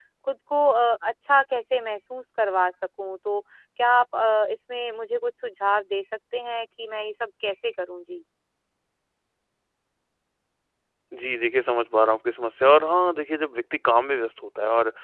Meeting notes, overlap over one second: none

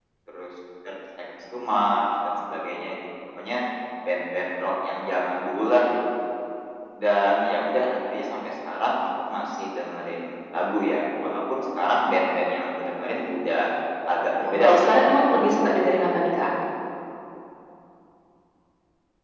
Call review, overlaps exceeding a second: present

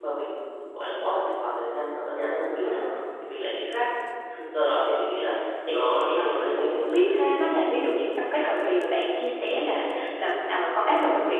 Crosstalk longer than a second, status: present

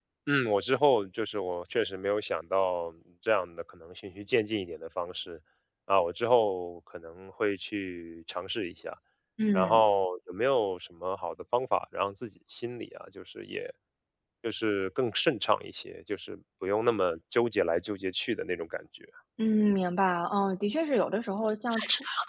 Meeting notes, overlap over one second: none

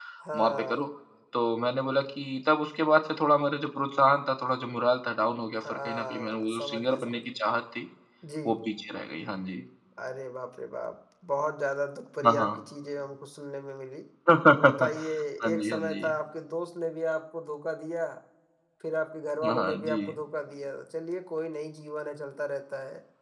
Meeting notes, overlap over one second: present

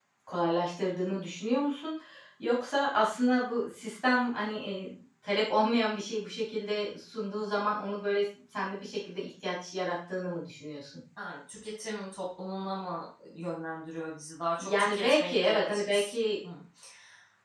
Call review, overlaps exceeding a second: present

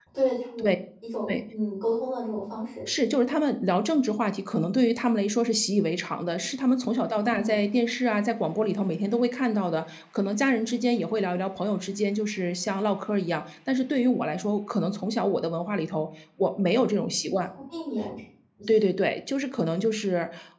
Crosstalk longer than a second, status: none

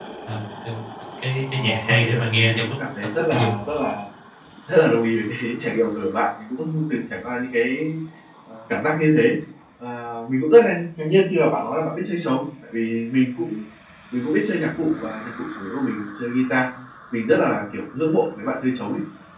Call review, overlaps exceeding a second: present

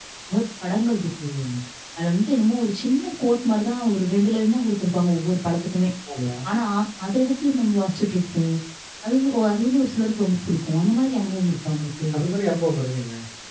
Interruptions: none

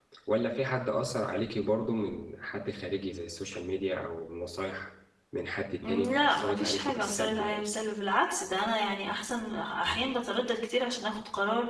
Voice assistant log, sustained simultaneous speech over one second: present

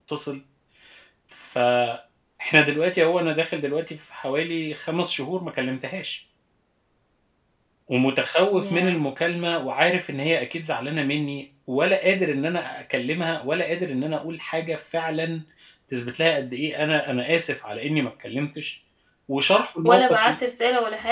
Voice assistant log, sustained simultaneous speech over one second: none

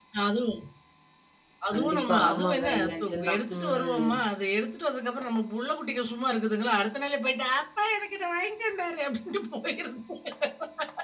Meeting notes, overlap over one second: present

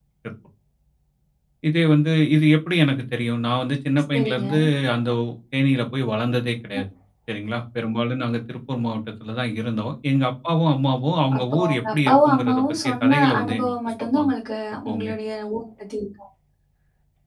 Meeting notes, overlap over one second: present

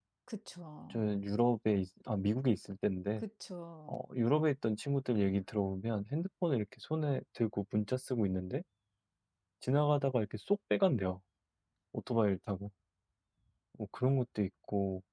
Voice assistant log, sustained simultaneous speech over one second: none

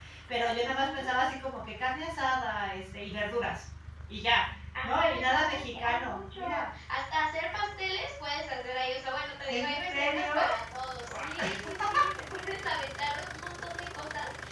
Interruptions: present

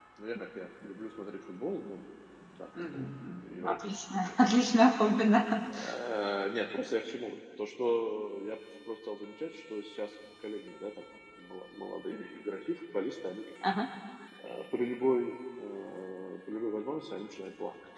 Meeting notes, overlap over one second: present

